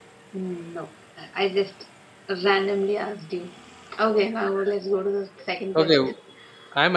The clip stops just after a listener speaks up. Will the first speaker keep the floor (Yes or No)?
No